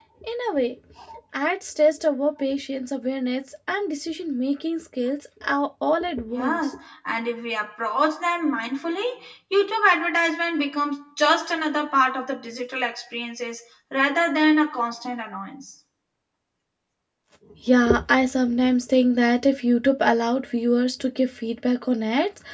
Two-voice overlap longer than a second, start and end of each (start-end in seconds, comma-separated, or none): none